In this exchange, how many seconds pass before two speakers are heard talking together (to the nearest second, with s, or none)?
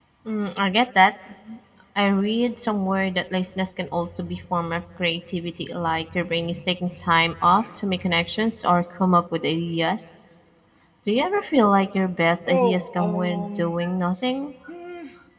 12 s